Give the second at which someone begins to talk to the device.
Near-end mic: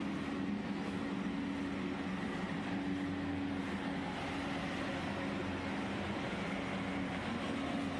none

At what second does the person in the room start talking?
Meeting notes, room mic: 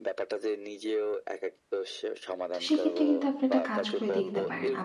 2.5 s

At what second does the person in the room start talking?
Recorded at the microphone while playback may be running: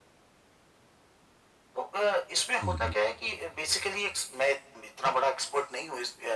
2.6 s

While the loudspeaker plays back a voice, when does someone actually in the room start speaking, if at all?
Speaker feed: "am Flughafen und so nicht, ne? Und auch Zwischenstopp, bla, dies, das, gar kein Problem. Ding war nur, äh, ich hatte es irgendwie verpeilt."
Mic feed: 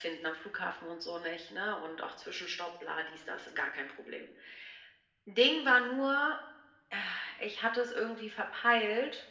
none

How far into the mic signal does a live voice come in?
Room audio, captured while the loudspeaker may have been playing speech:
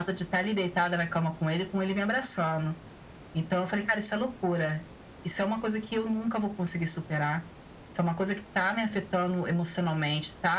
none

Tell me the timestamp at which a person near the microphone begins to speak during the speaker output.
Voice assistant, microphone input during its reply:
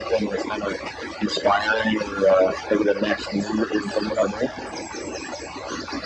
none

